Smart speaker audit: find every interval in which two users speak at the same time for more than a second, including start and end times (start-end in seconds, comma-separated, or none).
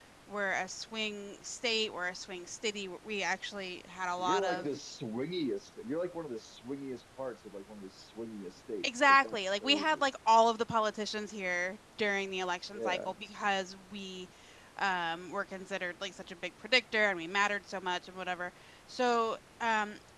8.8-10.1